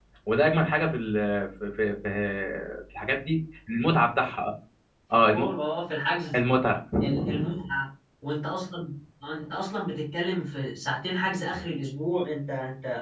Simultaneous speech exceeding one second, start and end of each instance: none

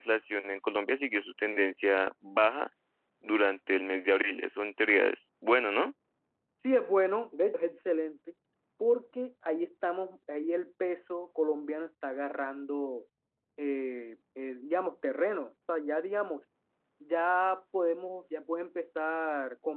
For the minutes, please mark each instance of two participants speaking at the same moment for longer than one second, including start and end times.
none

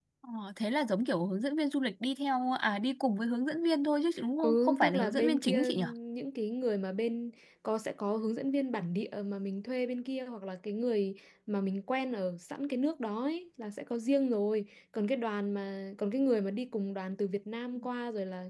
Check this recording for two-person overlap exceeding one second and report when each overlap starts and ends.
4.4-5.7

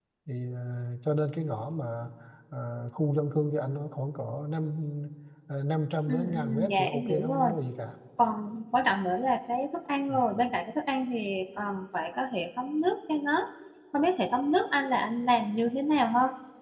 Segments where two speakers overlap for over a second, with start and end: 6.1-7.5

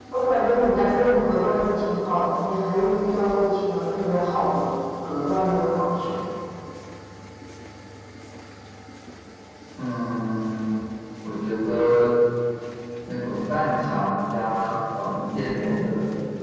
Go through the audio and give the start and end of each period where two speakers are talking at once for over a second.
none

